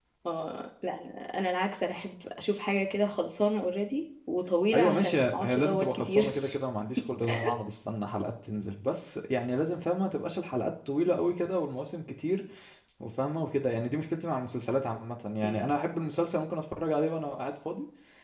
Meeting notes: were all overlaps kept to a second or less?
No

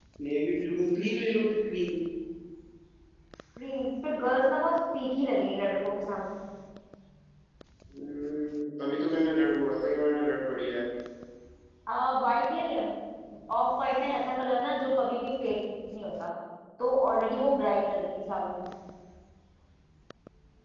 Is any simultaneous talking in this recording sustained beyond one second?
No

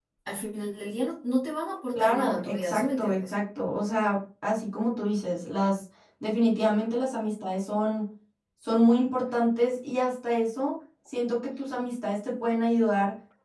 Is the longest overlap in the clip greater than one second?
Yes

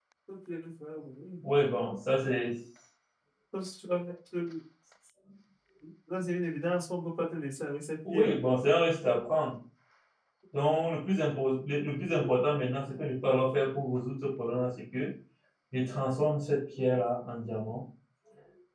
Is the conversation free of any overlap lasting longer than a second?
Yes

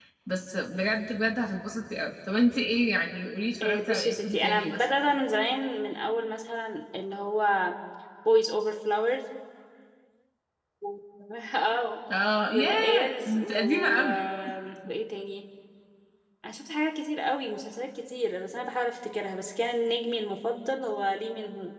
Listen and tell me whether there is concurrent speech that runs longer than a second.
Yes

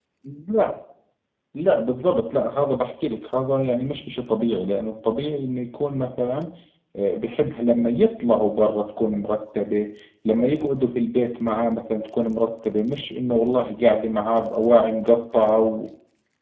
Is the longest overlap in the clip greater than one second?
No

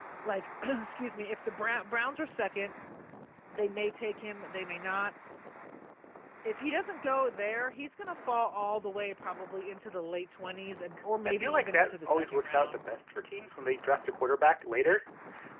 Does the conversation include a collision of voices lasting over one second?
Yes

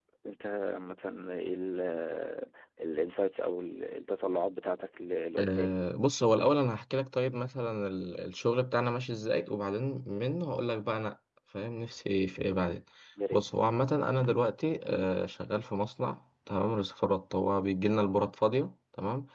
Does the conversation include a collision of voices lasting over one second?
No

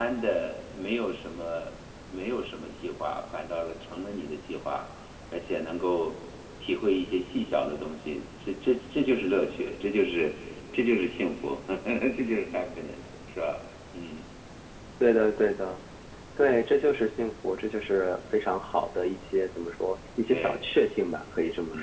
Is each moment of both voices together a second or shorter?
Yes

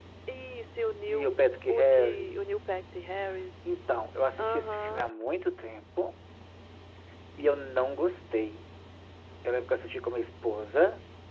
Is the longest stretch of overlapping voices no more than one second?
No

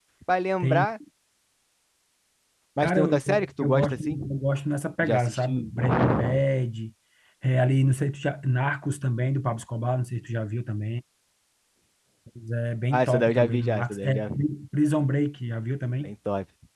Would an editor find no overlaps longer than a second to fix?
No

